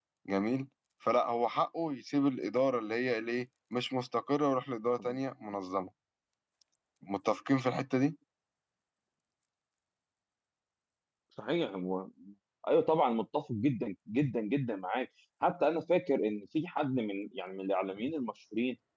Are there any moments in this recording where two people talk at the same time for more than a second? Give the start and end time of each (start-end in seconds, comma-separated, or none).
none